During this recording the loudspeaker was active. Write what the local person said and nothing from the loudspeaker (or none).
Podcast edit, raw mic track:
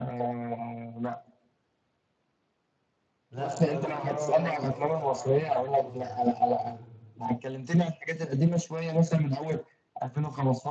لا وأمير كرارة برضو لو اتفرجت على حرب كرموز والمسلسلات